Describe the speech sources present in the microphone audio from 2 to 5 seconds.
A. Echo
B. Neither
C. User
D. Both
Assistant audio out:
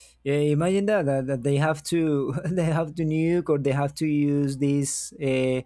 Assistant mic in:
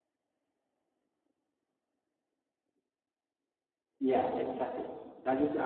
C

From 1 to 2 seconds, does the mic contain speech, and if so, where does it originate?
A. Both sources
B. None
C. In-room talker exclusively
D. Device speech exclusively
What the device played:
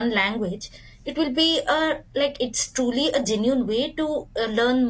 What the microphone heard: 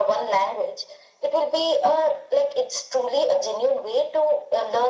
D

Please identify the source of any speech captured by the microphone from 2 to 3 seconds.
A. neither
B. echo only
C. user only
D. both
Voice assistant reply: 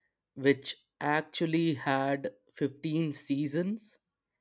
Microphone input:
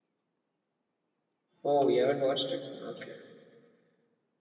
C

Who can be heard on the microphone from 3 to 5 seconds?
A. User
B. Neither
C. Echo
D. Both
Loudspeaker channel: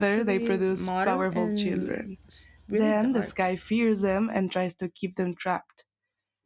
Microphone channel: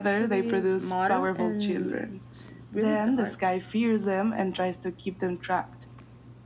C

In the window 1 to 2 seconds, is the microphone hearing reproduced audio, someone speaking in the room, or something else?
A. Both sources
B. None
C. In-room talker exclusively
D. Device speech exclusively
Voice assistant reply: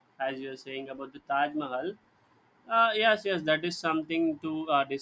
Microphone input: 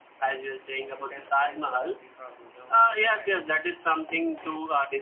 A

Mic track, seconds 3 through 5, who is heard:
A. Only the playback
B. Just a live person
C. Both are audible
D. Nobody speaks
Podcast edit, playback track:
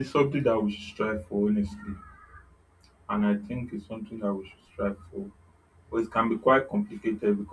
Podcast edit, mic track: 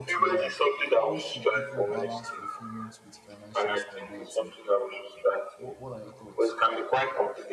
C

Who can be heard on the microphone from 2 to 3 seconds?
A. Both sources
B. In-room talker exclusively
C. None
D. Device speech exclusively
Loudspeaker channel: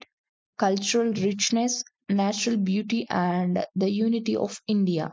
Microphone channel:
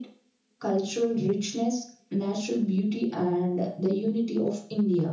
D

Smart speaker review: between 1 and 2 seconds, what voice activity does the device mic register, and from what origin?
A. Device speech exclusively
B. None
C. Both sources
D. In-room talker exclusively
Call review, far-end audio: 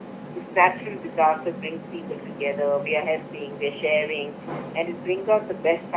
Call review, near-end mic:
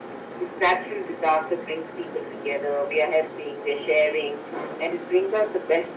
A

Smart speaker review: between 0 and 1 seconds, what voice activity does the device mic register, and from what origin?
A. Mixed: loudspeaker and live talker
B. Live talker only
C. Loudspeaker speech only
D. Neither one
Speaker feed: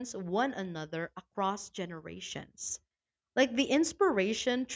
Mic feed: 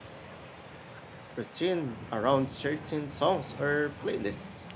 D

